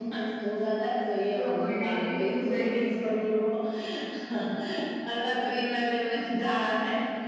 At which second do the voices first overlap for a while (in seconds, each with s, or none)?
1.3 s